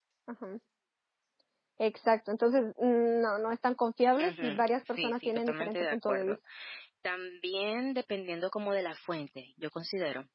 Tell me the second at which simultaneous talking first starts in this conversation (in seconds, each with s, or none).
4.2 s